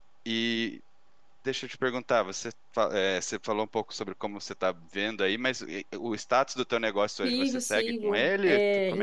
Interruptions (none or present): present